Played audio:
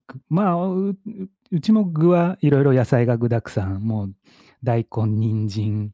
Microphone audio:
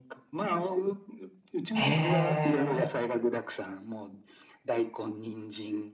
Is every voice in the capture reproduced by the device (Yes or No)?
No